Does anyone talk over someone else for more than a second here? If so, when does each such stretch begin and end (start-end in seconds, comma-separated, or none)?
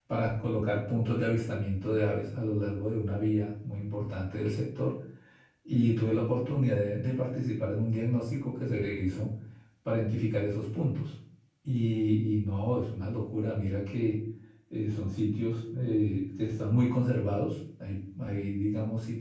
none